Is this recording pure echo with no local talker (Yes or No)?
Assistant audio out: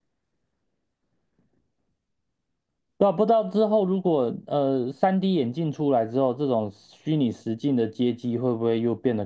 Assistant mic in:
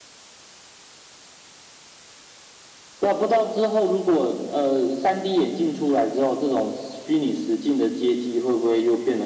Yes